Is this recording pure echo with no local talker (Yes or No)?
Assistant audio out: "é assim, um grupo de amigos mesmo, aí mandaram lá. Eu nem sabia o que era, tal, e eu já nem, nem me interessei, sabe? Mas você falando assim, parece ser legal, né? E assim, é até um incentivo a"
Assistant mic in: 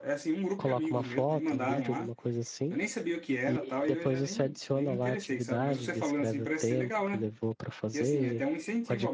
No